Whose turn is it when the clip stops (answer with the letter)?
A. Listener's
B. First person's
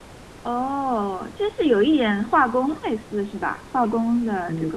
A